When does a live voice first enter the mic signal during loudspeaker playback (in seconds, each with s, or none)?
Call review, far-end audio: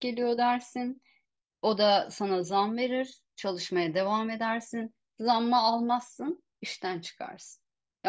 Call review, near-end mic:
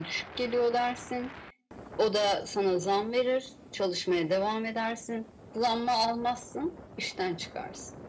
none